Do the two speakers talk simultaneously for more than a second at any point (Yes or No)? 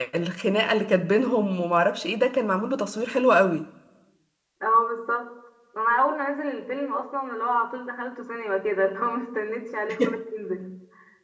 No